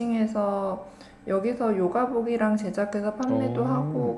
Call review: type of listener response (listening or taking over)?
listening